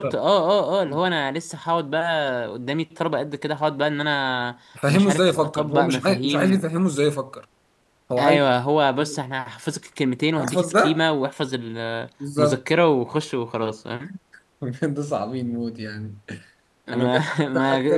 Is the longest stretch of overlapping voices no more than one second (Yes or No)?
No